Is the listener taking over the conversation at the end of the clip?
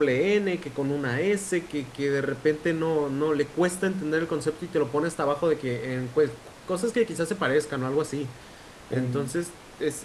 No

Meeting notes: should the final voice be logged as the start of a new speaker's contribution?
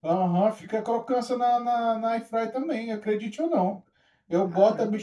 No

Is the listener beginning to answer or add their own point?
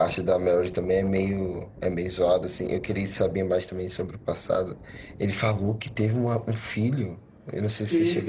Yes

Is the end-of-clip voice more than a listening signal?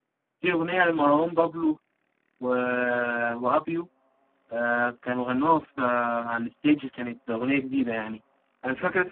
No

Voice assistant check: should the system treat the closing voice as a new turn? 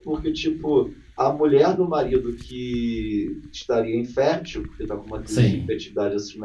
No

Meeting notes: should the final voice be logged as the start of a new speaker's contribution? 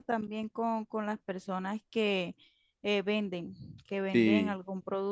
No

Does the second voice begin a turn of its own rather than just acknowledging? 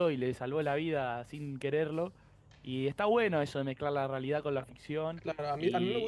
Yes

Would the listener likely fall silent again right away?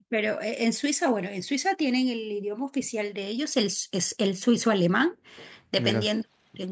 Yes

